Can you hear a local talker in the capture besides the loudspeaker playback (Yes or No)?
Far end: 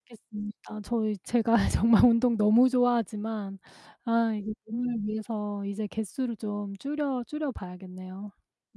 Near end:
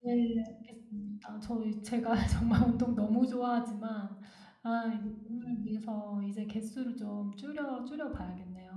No